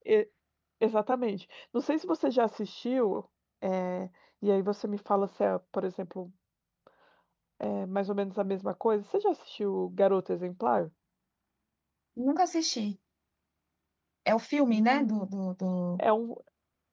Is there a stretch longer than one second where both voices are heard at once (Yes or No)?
No